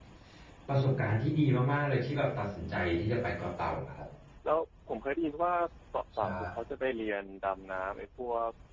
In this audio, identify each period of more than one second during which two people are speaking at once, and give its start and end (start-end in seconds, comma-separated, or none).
none